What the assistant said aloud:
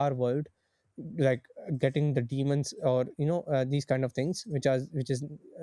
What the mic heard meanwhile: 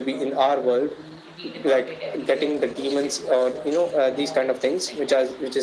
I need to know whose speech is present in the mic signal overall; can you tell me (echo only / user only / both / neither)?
both